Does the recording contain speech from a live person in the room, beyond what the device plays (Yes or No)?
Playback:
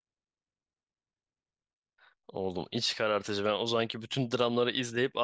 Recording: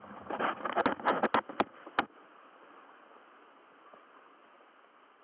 No